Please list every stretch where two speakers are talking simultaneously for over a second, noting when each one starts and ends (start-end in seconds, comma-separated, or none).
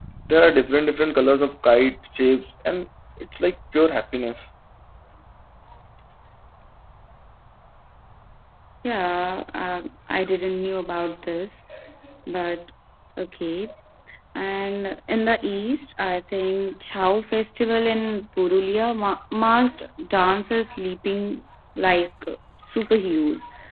none